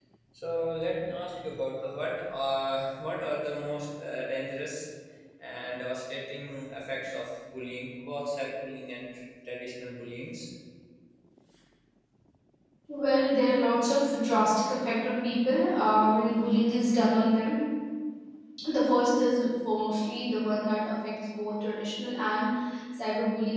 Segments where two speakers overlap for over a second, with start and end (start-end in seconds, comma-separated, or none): none